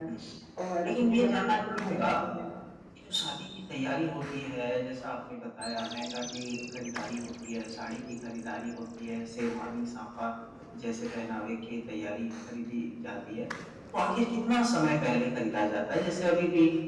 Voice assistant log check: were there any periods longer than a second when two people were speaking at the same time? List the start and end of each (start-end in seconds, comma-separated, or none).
0.8-2.1